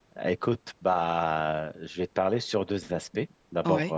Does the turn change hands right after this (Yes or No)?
No